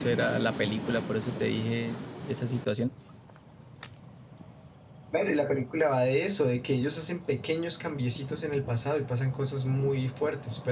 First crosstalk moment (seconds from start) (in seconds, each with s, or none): none